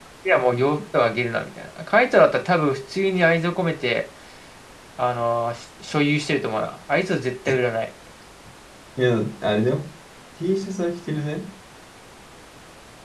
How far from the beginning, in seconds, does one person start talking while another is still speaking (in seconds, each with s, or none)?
none